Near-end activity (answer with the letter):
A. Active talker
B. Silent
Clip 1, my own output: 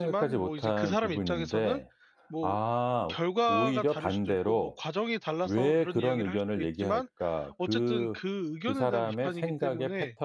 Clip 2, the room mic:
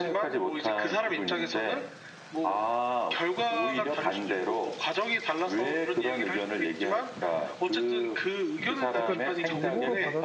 A